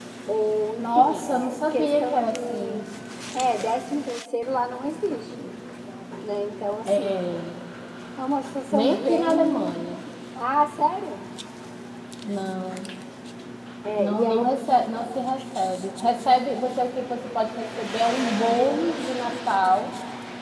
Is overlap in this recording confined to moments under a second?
No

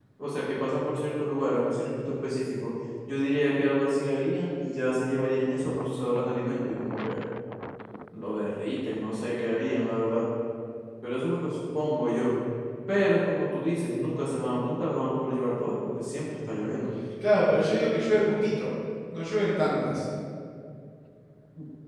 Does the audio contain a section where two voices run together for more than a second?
No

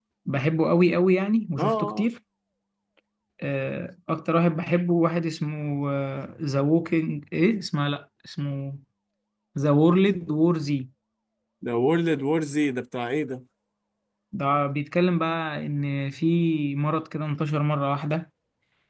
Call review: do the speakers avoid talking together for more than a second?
Yes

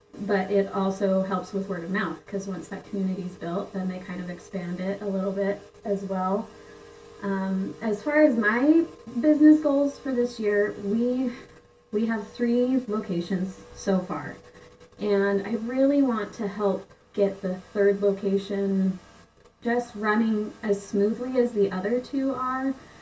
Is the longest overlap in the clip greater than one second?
No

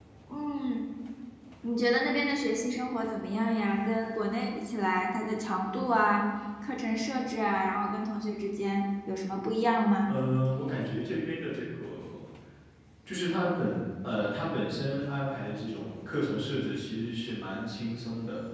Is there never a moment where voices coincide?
Yes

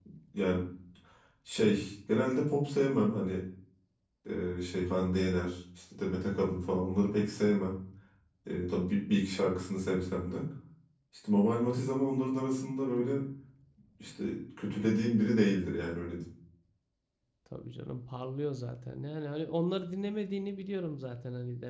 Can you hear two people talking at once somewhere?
No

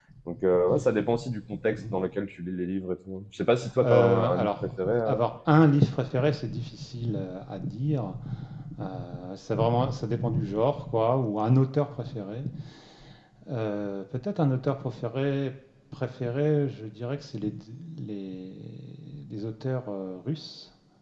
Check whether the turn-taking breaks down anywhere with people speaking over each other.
Yes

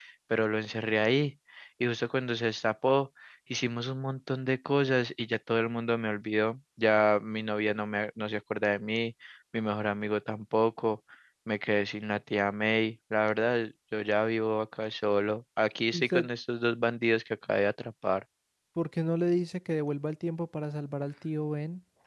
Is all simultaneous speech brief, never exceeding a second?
Yes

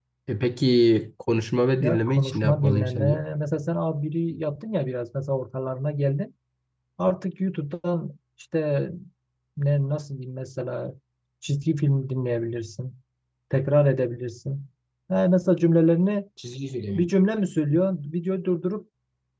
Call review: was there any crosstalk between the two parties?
Yes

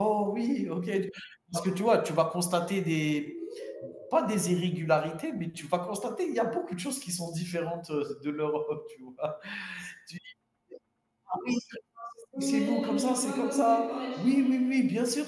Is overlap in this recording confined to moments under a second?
No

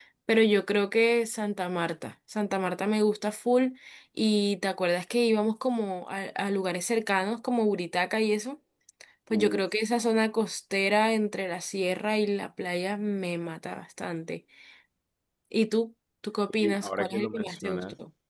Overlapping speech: Yes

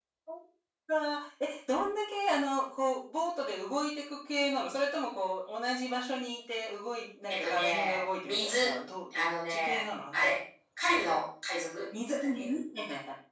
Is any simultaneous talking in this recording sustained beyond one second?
Yes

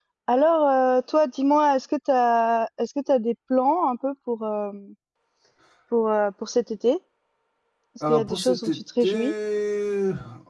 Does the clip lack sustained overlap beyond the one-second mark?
No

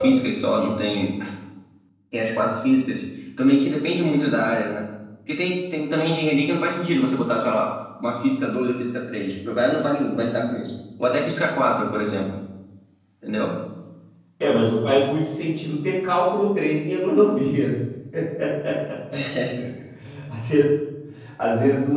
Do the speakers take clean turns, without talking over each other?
Yes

